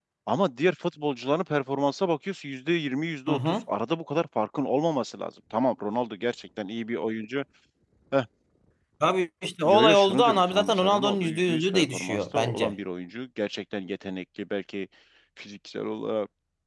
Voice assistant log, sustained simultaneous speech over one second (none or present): present